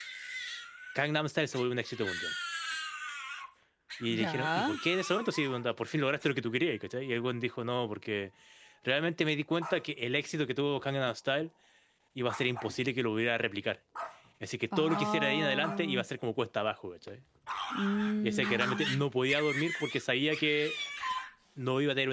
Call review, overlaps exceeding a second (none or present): present